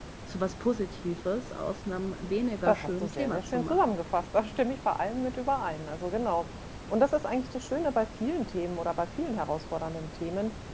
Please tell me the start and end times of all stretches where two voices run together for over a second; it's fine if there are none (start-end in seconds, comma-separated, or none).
2.6-4.0